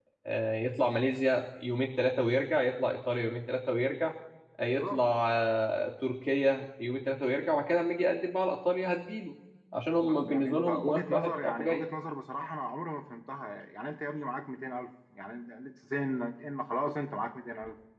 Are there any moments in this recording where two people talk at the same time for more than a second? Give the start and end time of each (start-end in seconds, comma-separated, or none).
10.3-11.8